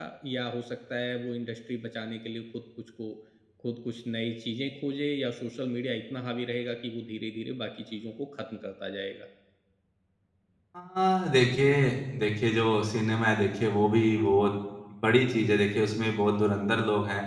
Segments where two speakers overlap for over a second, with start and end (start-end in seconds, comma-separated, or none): none